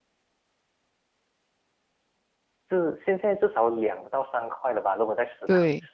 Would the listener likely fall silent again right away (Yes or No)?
No